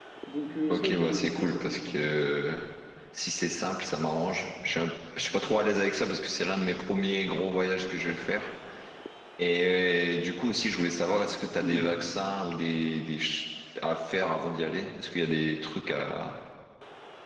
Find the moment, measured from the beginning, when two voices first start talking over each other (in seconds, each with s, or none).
0.7 s